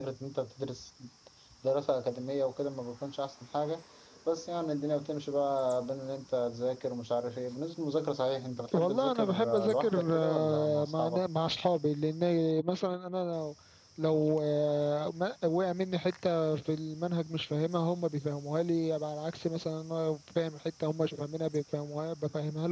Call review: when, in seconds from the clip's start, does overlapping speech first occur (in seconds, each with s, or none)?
8.7 s